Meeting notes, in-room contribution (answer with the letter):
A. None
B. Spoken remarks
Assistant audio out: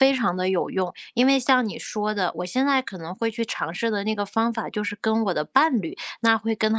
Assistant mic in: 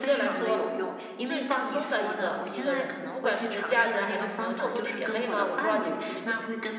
B